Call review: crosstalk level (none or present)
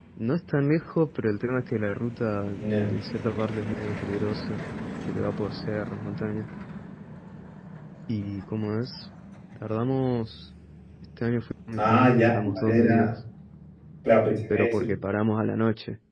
present